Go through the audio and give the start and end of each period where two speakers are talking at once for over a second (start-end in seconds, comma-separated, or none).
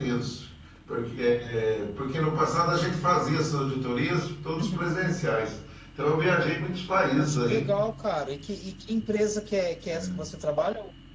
none